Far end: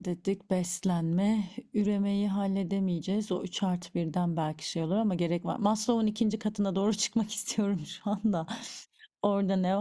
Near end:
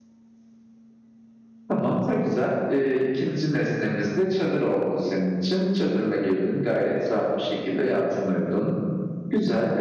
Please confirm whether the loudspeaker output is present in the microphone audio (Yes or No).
No